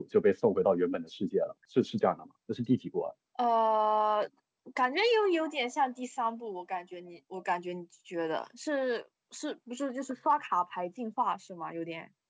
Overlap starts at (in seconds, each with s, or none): none